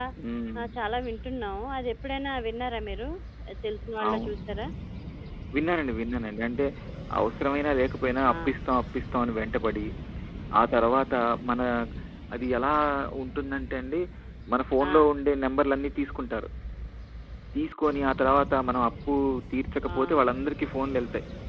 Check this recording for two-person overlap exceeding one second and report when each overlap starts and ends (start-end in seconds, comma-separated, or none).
none